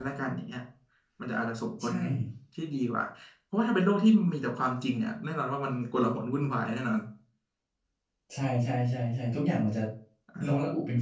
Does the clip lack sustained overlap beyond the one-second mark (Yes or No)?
Yes